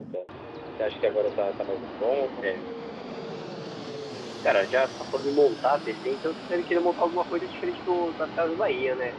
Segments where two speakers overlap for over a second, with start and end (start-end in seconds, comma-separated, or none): none